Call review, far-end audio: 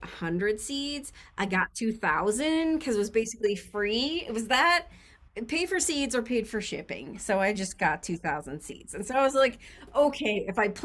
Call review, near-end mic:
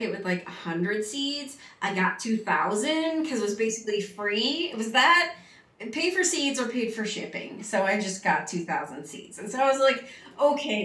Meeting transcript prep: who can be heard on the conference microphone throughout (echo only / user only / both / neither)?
echo only